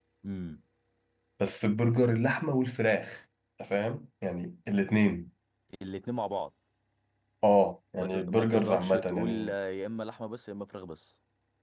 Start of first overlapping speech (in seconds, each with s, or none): 8.0 s